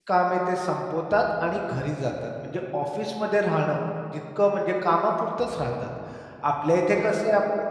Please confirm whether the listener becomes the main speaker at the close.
No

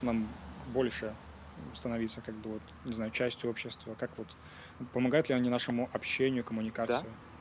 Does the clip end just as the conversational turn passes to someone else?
Yes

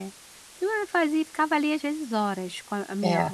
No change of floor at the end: Yes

